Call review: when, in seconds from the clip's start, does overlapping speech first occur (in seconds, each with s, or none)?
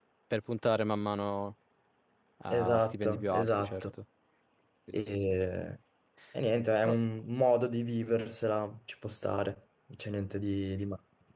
2.5 s